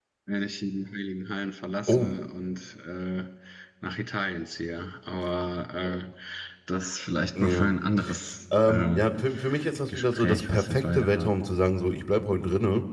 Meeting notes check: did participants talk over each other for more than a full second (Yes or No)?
Yes